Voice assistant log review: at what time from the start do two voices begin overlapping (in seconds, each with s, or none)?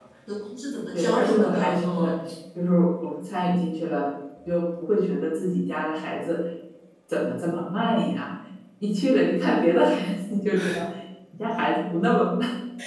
0.9 s